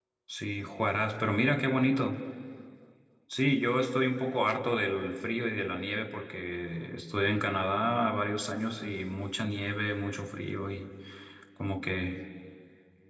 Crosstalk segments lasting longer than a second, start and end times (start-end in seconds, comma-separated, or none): none